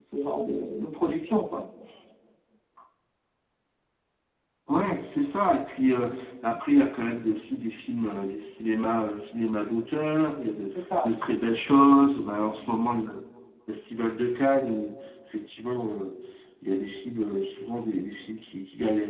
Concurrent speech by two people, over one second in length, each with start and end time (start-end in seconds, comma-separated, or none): none